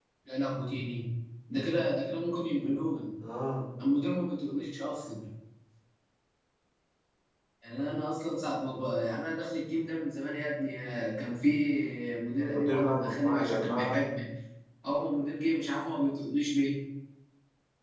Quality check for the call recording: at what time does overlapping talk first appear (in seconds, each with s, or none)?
12.4 s